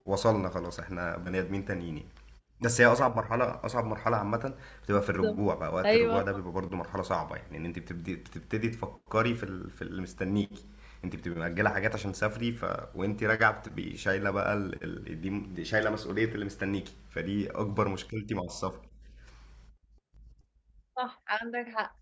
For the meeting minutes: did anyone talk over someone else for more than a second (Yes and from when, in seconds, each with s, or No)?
No